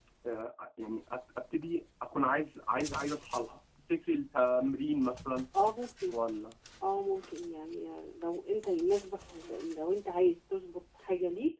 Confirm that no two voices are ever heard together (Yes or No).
Yes